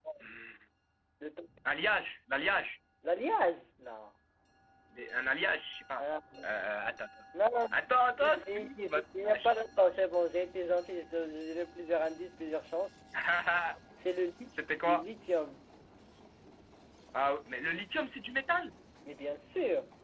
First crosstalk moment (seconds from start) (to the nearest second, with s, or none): 8 s